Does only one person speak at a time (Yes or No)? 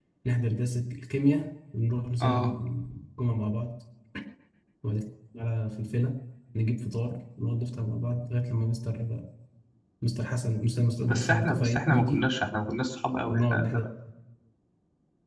No